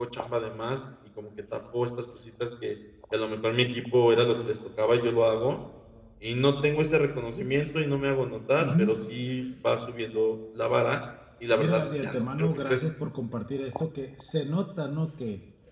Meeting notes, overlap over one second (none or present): present